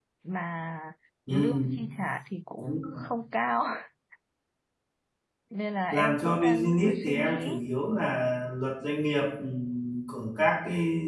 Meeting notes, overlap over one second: present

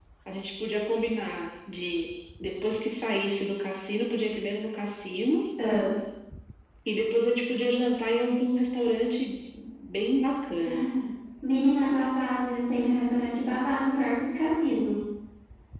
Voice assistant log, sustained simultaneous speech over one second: none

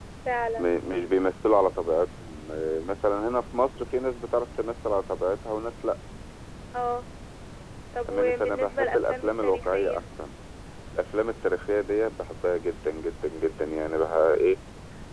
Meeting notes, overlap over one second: present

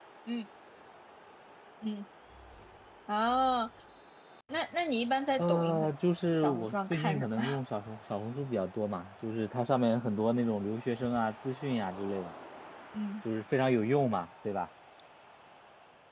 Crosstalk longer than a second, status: present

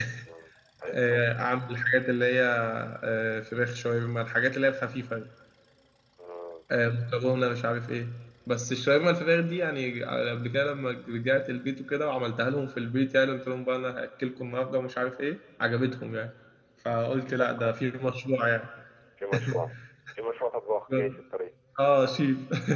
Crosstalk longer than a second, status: none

